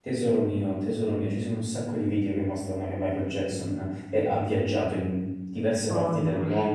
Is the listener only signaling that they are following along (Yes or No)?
Yes